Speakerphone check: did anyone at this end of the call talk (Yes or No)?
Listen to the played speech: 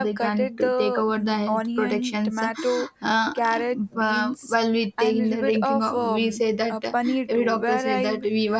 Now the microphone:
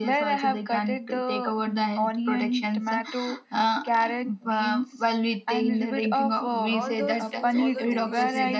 Yes